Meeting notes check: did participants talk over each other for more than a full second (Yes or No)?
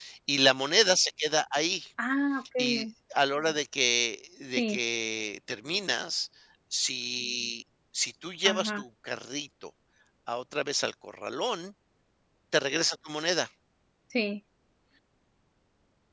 No